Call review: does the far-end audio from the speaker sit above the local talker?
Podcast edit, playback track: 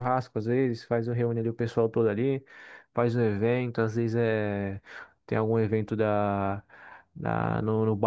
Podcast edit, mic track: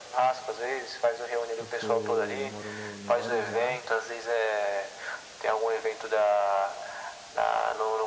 Yes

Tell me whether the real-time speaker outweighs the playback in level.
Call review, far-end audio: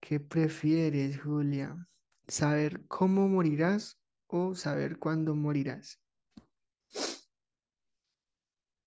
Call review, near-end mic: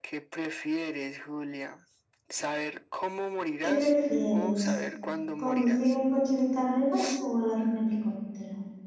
Yes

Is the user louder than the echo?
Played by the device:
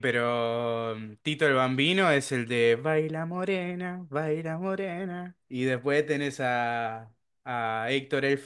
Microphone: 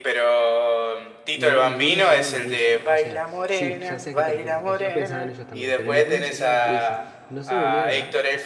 No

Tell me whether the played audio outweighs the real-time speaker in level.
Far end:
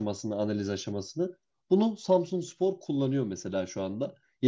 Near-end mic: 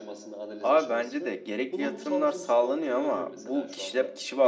No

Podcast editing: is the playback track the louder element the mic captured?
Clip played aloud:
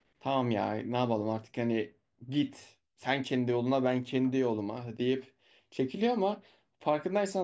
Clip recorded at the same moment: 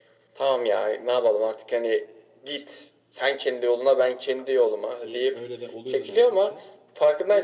Yes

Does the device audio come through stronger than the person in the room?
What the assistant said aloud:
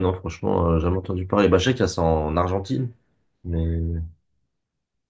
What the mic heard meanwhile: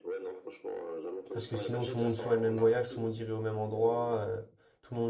No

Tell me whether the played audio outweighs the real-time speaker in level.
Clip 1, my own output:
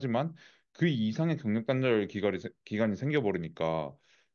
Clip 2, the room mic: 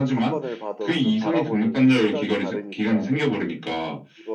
Yes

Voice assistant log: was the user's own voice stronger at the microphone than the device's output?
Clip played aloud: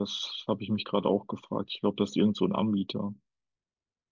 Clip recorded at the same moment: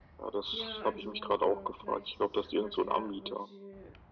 No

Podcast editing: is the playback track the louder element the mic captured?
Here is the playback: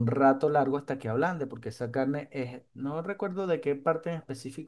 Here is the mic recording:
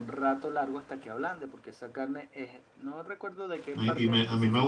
No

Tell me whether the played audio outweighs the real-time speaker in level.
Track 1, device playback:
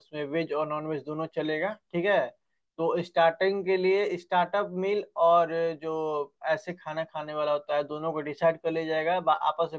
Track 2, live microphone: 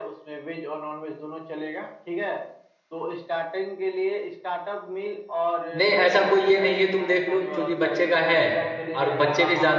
No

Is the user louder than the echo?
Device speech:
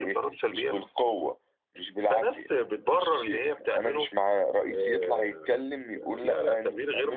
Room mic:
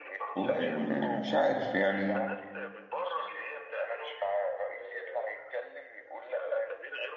Yes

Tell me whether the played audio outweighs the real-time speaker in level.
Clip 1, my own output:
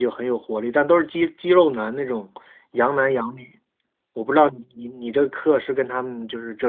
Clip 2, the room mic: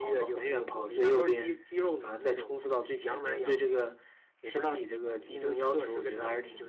No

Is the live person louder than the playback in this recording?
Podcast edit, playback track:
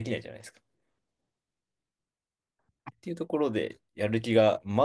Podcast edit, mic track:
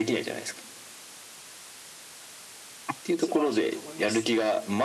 No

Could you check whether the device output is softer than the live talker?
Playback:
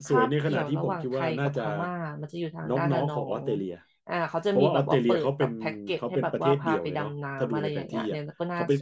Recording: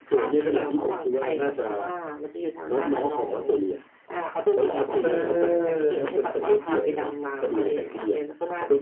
Yes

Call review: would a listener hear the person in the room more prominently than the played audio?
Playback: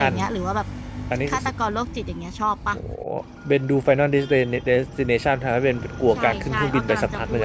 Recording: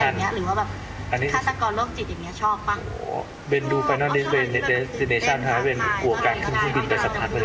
No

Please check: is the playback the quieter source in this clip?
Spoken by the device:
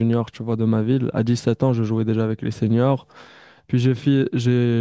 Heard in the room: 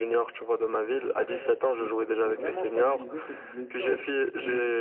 No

